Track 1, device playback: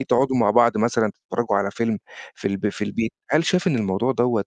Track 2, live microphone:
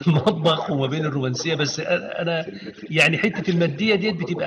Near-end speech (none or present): present